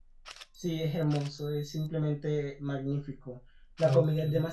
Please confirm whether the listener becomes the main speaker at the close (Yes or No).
No